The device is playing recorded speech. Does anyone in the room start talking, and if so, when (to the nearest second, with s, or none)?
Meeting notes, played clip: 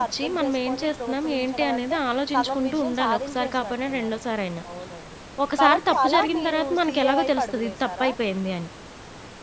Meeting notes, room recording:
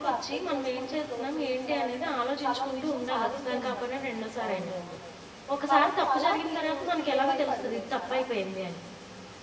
3 s